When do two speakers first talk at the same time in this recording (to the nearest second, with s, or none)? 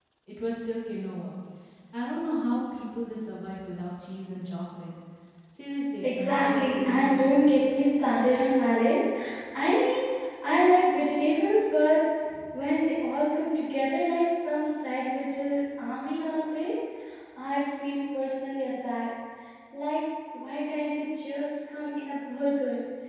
6 s